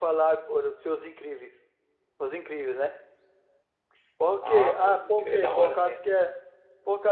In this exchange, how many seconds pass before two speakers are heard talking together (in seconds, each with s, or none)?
4.5 s